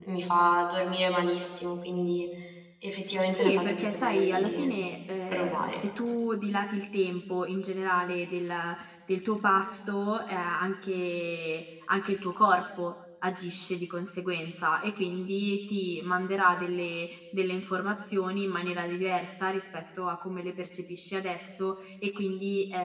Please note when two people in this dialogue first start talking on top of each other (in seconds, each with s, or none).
3.3 s